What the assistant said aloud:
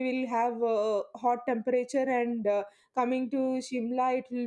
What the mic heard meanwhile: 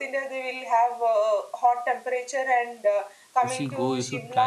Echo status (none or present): present